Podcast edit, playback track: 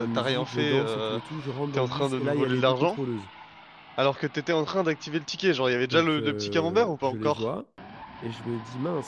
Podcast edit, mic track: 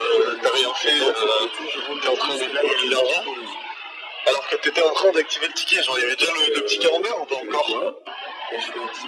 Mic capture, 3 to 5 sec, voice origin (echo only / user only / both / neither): echo only